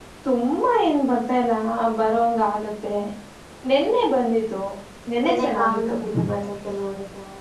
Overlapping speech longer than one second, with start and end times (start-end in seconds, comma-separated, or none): 5.2-6.5